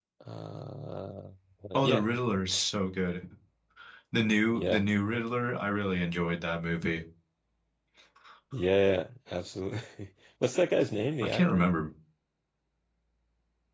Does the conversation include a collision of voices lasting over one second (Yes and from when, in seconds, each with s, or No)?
No